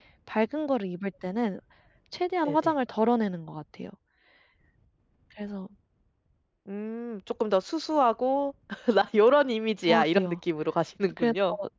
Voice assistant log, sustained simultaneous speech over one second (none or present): none